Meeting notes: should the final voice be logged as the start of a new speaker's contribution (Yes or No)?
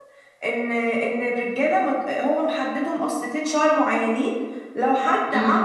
No